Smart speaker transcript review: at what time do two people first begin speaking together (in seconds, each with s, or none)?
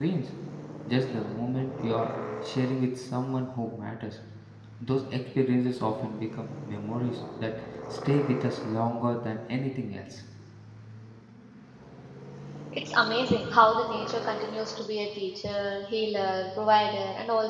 none